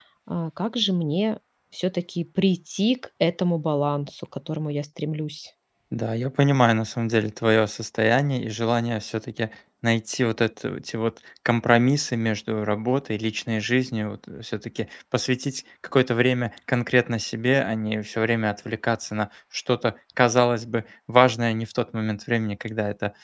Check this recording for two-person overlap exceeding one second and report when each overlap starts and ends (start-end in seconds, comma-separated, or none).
none